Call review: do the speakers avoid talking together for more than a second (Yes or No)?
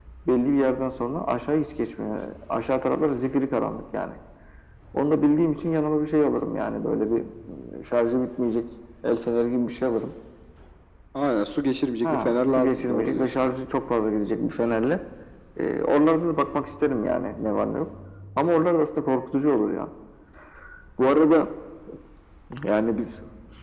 No